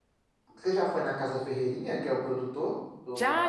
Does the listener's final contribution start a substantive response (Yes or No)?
Yes